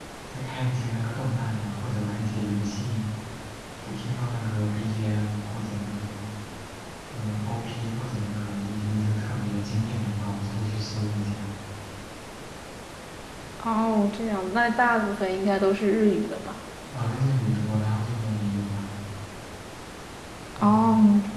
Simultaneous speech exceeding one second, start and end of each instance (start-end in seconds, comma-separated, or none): none